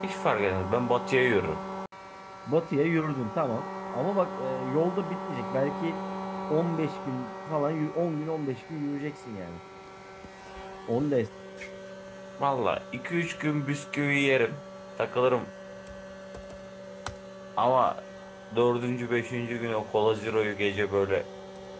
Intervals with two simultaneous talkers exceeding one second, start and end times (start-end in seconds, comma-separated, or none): none